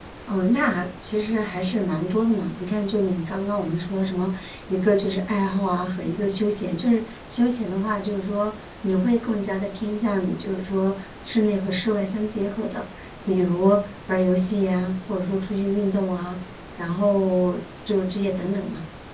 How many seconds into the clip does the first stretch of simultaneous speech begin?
none

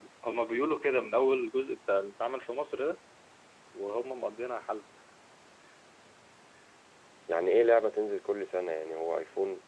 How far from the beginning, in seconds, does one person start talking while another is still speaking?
none

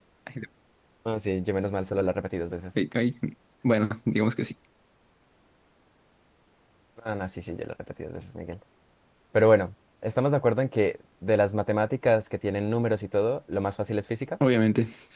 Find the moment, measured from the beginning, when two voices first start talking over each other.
none

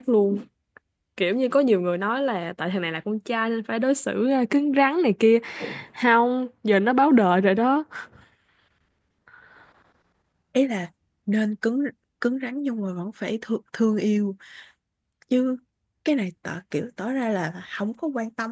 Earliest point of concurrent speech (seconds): none

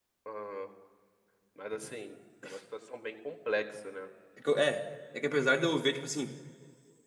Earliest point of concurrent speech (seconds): none

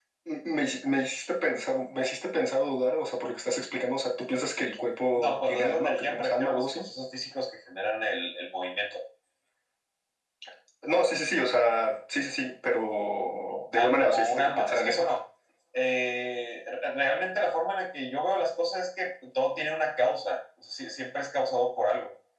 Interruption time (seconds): 5.1 s

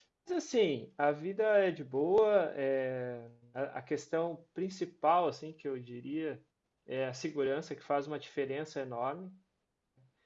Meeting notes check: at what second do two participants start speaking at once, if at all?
none

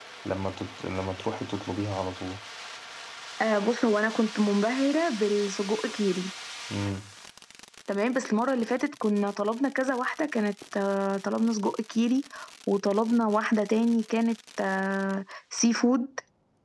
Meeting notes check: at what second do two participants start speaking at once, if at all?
none

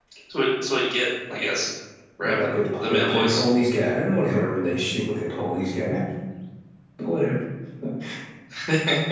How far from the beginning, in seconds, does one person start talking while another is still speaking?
2.2 s

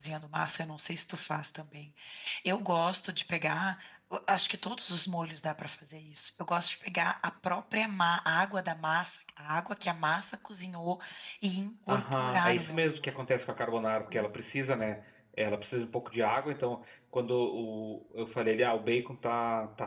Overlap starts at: 11.9 s

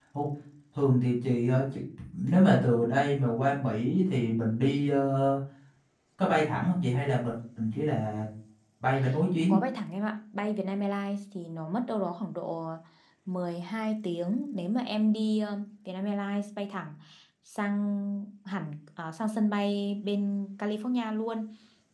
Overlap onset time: none

